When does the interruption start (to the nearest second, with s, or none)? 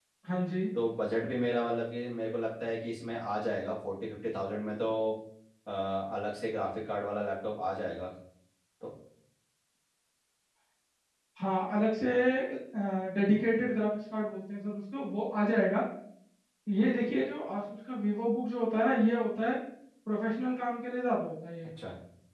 none